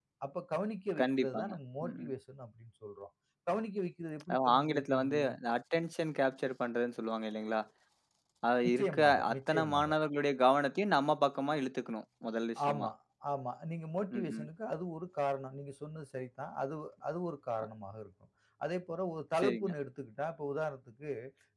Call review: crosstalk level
present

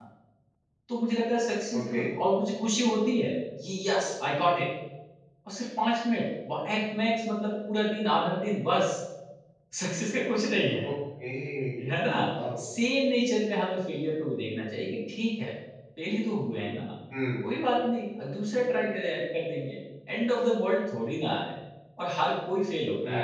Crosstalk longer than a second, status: none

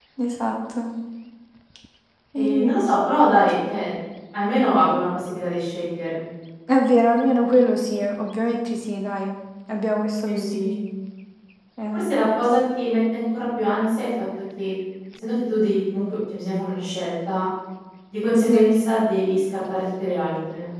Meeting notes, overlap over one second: none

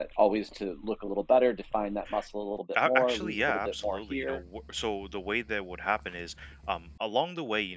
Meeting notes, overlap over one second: present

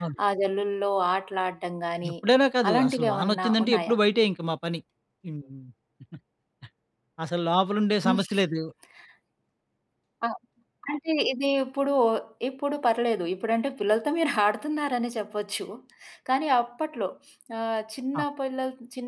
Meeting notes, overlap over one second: present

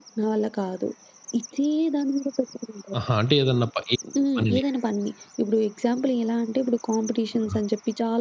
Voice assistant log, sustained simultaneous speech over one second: none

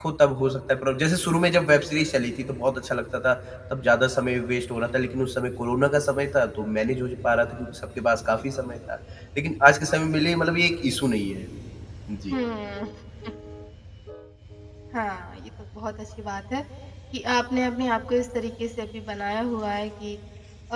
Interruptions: none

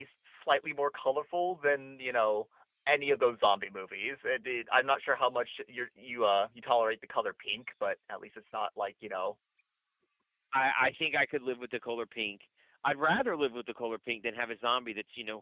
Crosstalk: none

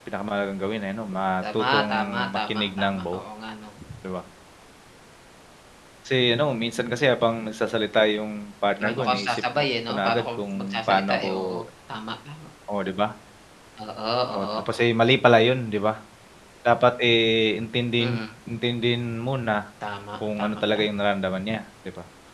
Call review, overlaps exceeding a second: present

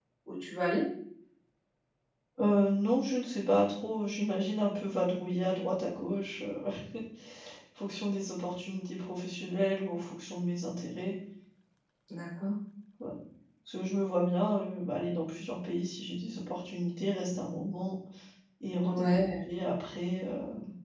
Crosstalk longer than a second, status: none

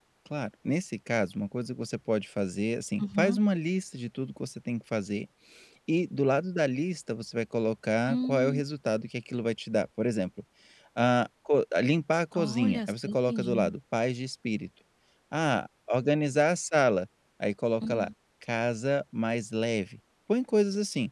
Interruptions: present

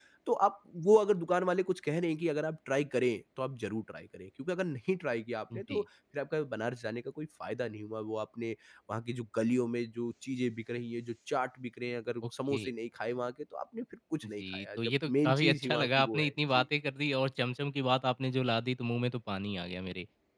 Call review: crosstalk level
present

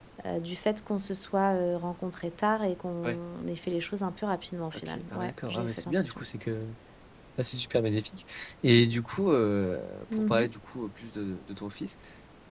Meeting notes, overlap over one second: present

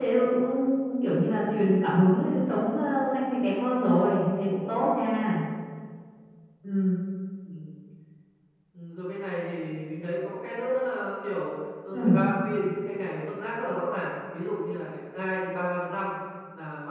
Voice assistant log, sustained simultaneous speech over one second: none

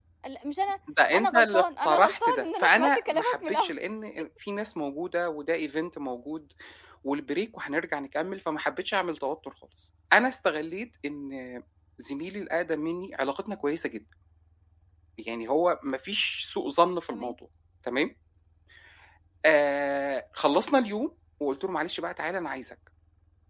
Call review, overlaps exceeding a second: present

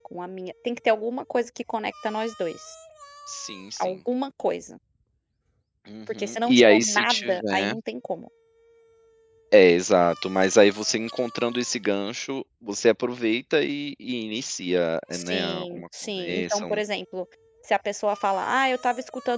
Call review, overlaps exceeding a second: present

